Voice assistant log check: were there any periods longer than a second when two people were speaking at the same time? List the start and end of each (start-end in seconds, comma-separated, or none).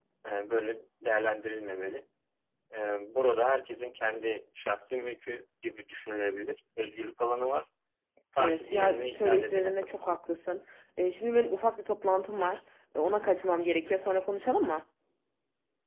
8.4-9.9